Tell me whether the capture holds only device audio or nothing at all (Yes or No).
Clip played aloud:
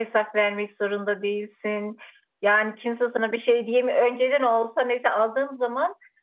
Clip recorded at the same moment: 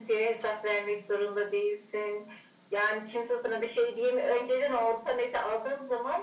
Yes